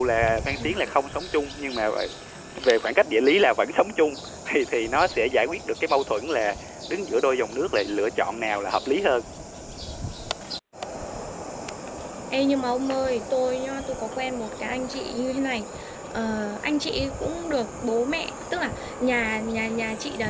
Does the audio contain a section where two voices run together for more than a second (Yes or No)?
No